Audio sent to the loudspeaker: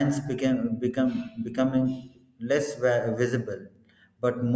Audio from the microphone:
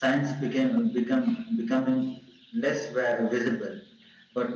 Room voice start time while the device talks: none

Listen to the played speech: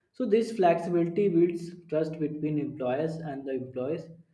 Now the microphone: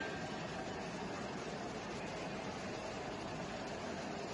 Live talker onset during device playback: none

